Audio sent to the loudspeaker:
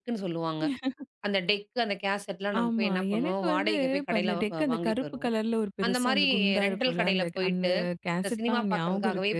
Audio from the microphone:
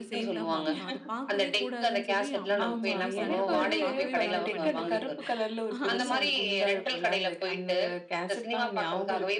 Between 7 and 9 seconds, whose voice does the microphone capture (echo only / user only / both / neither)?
echo only